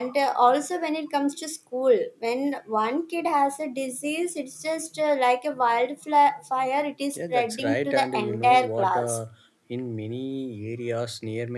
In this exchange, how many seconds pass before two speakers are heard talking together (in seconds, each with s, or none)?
7.2 s